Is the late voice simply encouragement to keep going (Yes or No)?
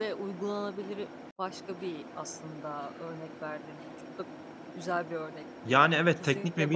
No